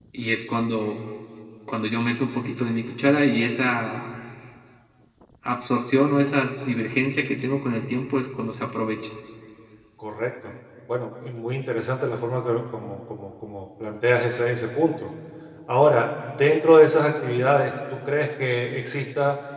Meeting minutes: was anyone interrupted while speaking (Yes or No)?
No